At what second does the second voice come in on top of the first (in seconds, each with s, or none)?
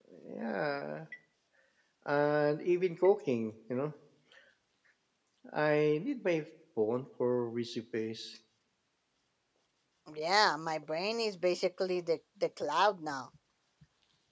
none